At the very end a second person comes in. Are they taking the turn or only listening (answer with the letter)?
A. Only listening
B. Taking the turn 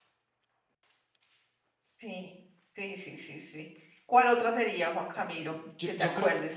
B